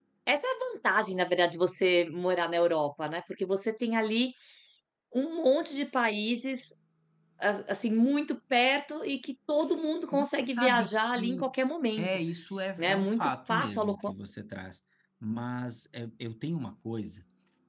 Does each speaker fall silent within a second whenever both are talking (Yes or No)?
No